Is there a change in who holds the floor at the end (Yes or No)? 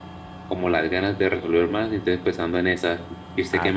Yes